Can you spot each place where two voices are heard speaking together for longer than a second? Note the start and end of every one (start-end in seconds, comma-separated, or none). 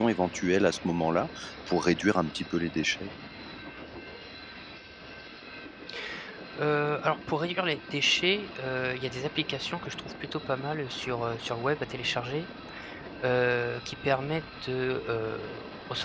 none